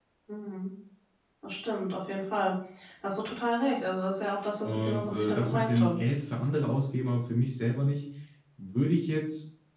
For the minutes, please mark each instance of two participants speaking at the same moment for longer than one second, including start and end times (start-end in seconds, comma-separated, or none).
4.6-6.0